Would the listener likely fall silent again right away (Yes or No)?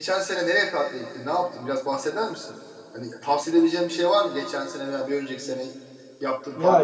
No